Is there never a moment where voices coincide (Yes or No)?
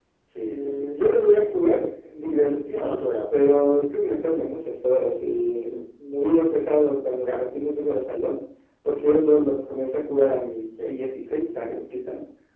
No